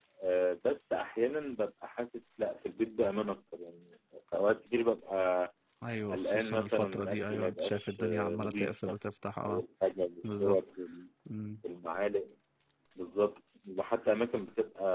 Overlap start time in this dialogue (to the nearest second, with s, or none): 6 s